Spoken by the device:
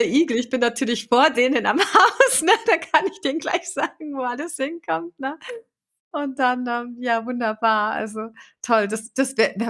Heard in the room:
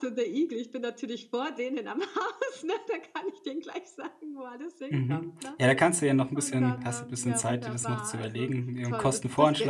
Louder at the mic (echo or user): user